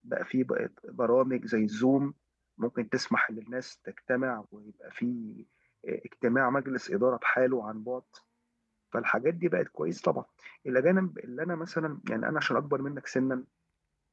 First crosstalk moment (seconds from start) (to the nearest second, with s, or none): none